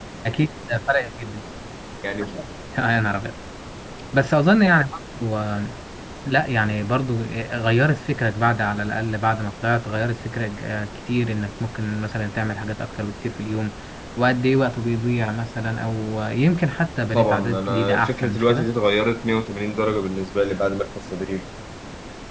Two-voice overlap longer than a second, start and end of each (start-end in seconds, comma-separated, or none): 17.1-18.7